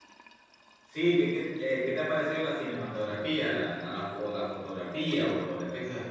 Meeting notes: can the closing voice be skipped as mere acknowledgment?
No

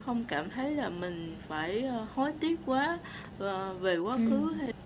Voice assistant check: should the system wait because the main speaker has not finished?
Yes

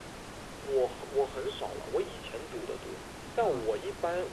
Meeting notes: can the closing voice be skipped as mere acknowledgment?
Yes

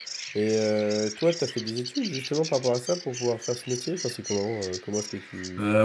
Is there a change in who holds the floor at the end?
Yes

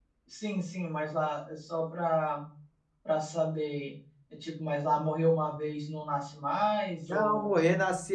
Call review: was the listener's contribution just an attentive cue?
No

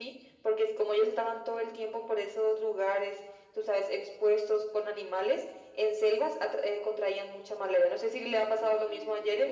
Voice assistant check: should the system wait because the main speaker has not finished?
No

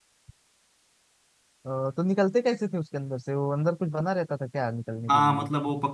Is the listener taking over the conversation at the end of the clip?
Yes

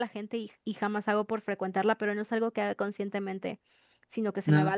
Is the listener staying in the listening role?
Yes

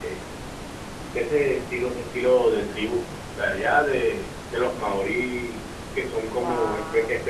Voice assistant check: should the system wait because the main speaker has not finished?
Yes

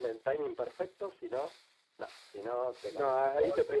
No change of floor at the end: No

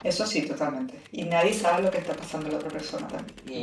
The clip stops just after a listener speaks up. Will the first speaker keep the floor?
No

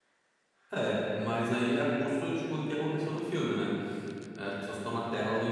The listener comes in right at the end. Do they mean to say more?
No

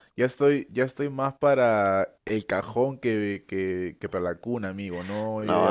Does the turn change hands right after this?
Yes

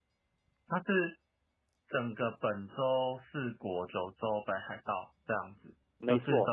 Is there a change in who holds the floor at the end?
No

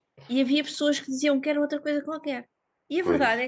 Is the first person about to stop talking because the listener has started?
No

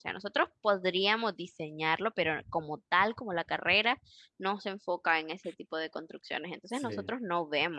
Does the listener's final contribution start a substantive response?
No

